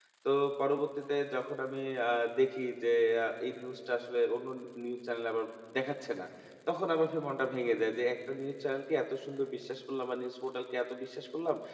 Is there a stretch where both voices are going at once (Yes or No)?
No